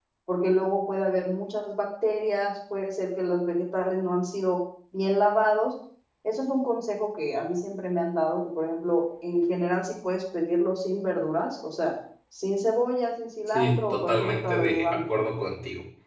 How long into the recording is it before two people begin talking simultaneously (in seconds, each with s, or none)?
13.5 s